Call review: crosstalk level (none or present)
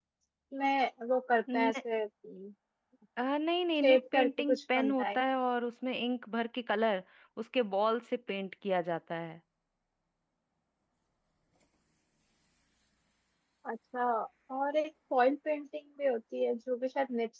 present